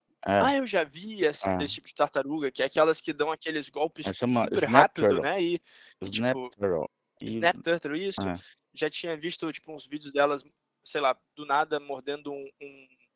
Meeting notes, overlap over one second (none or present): present